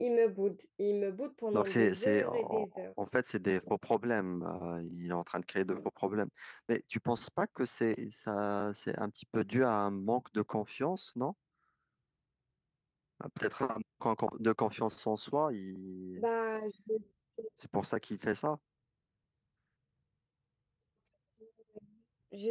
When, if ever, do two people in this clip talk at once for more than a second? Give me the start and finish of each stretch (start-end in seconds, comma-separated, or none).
1.5-2.8